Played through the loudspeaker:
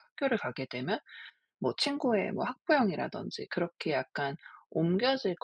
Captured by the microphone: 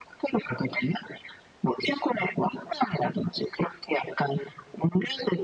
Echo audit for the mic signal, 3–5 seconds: echo only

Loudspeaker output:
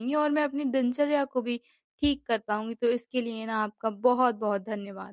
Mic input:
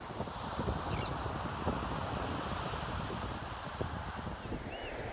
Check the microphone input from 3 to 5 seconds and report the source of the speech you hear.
neither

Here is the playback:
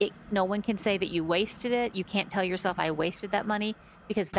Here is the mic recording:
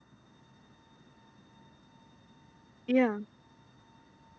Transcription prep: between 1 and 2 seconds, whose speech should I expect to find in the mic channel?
neither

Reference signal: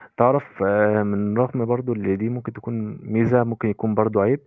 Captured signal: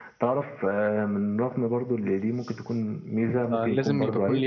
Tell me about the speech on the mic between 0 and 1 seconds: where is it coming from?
echo only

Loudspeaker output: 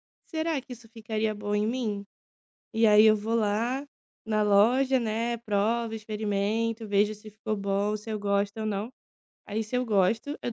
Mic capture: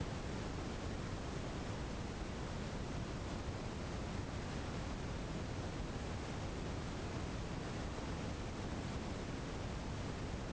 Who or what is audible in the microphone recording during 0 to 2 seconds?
neither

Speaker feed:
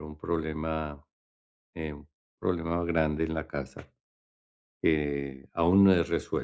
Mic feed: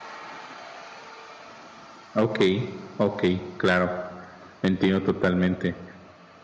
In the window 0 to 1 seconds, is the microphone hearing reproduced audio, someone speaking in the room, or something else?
neither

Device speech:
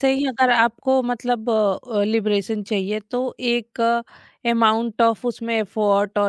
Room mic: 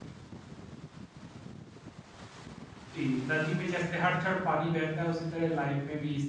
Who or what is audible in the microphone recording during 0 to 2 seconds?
neither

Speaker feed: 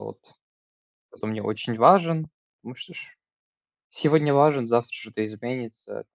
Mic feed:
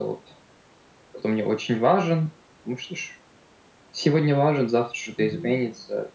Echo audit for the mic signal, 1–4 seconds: echo only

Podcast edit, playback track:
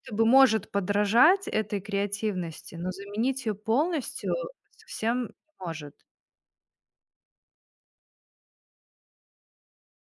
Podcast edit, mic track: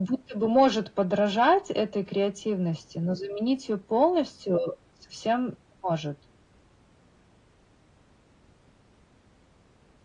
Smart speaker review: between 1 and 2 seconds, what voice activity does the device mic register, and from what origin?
echo only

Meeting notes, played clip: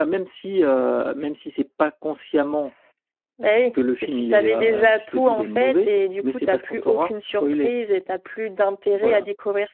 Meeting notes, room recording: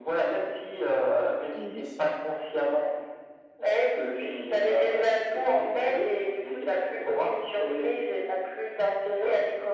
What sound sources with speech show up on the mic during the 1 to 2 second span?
both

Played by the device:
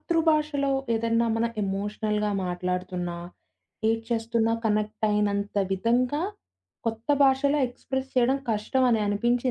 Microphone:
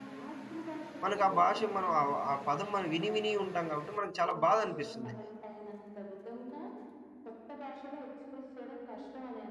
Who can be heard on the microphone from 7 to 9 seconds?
echo only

